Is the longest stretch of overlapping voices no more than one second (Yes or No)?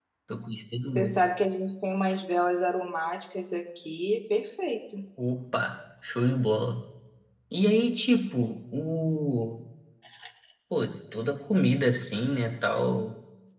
Yes